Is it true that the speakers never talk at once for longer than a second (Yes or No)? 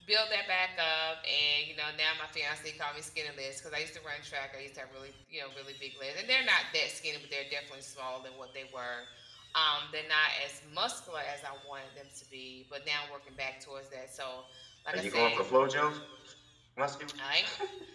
Yes